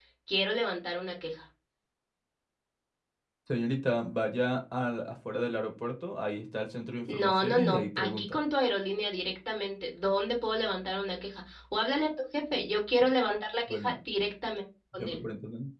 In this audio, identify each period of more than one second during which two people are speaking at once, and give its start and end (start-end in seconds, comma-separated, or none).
7.1-8.4